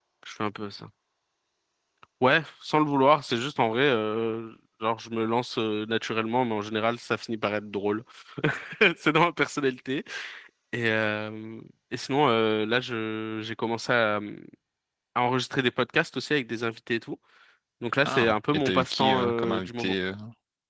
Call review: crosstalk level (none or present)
present